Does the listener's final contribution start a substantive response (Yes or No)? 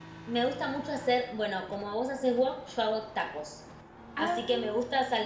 No